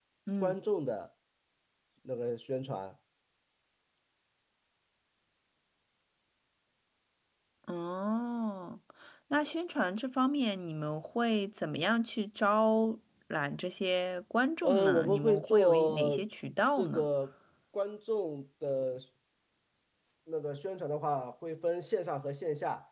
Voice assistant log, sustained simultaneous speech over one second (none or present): present